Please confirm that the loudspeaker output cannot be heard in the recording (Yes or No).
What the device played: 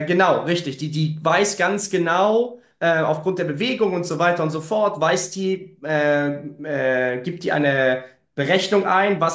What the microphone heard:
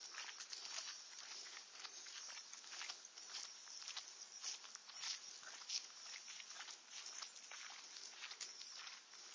Yes